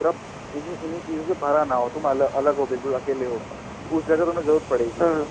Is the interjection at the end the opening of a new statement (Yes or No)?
No